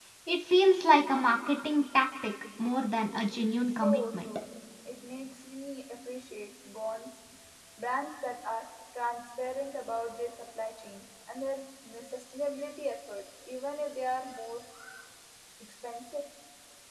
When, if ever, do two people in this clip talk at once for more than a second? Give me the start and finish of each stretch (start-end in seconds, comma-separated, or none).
3.0-4.3